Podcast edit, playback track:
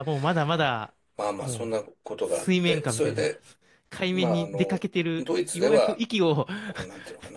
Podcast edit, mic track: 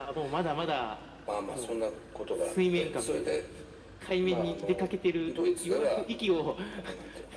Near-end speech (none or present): none